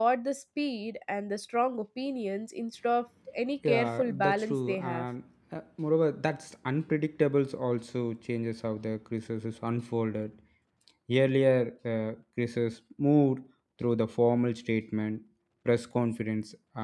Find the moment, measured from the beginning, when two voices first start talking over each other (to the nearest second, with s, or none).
4 s